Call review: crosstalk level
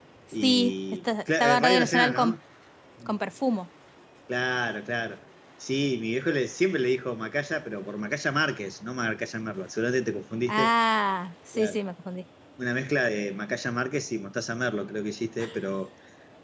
present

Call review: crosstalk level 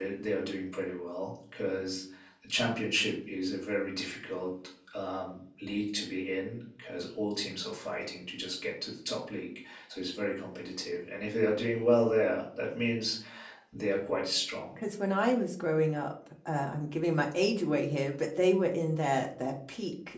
none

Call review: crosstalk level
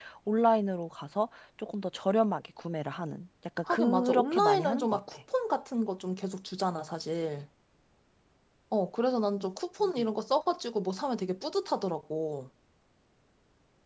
present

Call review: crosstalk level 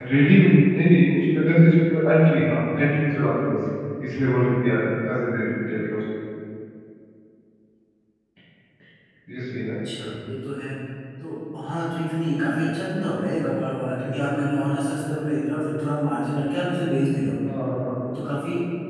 none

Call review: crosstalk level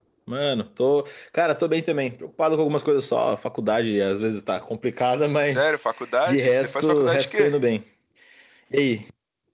present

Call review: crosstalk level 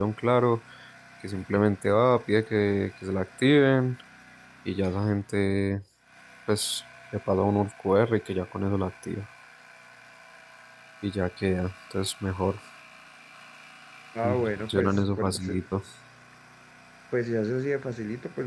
present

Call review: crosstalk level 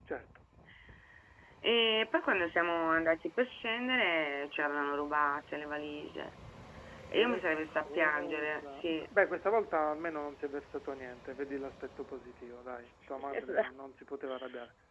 present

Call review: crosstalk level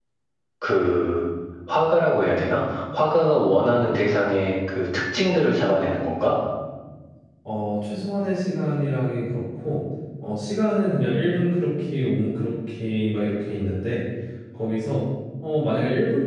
none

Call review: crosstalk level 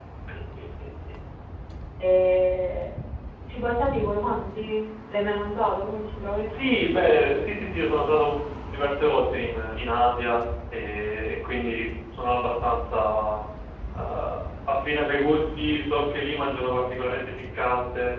none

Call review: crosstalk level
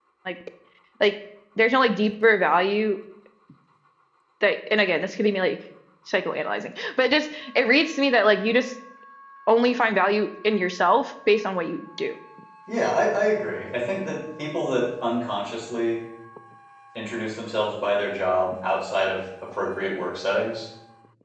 none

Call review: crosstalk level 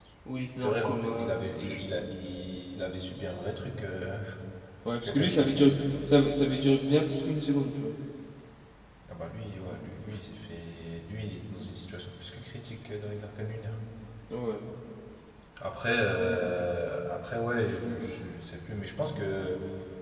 present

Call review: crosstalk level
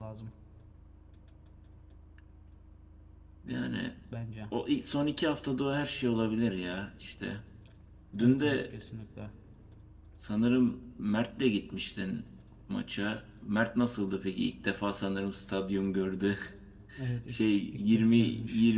present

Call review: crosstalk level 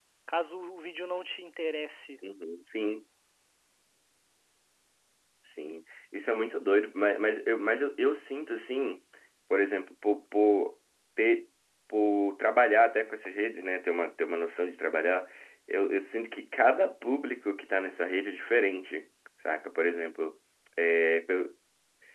none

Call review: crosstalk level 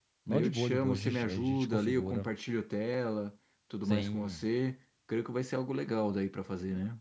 present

